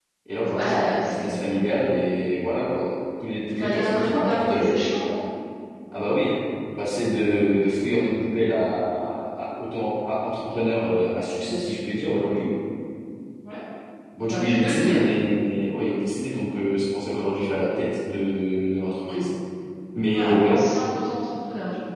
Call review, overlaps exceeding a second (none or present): present